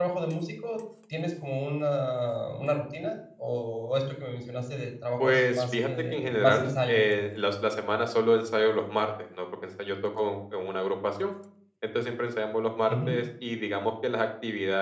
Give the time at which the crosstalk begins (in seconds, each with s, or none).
5.2 s